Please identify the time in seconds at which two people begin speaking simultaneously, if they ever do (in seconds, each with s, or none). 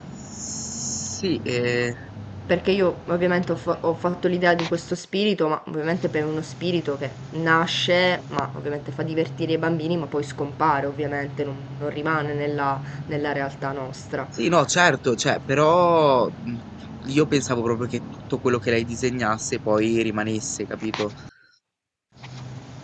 none